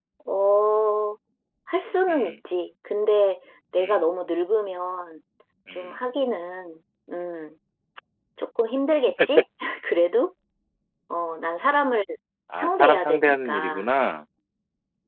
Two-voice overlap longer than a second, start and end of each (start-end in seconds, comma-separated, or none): 12.6-13.9